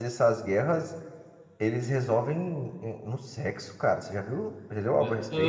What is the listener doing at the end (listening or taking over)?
taking over